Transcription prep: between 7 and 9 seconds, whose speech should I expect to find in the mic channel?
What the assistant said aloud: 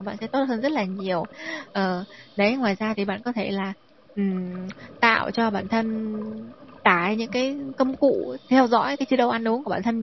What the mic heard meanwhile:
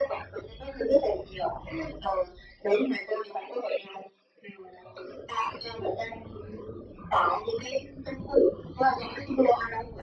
echo only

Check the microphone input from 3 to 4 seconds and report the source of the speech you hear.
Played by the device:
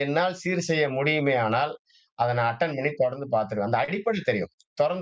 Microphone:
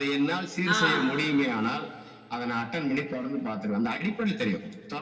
echo only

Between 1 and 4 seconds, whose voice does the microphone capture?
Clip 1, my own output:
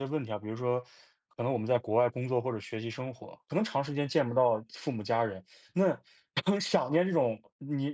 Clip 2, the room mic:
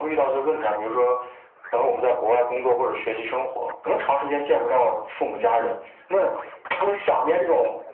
echo only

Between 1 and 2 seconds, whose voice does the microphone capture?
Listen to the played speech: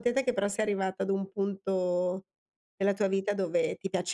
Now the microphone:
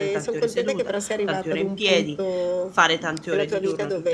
both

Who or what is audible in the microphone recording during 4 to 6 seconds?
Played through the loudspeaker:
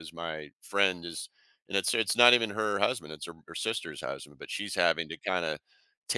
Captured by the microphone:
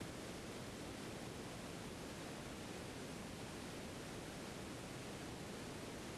neither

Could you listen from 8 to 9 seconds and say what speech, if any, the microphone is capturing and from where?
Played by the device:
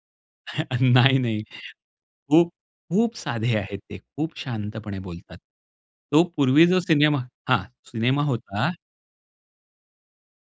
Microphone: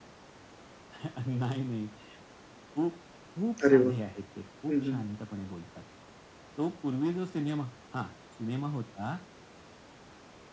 echo only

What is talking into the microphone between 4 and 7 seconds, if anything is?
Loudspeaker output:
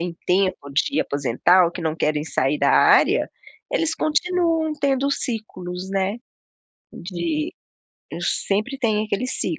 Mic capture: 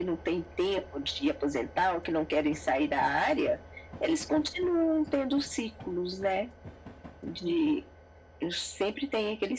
echo only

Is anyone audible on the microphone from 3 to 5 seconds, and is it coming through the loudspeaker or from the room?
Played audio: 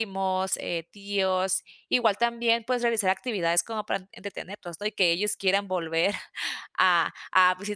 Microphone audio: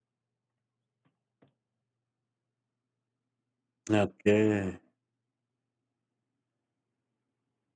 user only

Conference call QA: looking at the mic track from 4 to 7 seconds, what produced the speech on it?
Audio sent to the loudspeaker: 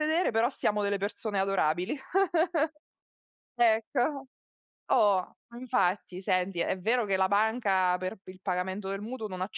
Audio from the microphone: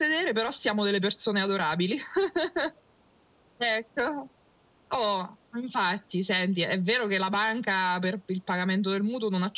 echo only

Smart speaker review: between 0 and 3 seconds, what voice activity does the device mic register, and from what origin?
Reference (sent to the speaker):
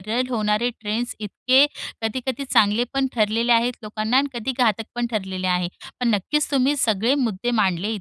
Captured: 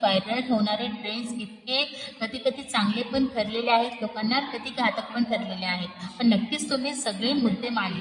echo only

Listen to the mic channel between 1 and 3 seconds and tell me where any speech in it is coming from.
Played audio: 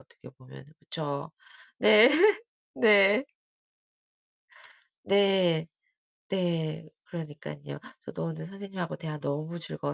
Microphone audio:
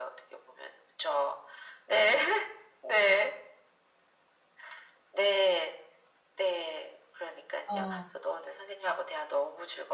echo only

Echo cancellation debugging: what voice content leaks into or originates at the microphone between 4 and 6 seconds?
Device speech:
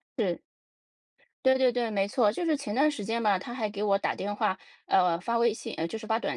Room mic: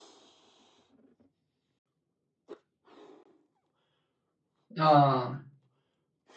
user only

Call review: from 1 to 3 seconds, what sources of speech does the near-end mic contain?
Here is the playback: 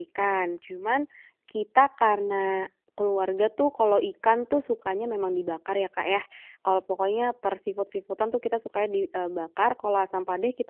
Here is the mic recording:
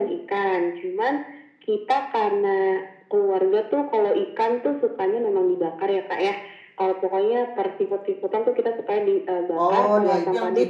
echo only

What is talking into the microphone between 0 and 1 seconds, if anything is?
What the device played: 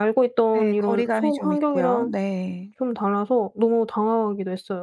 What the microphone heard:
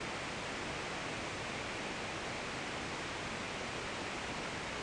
neither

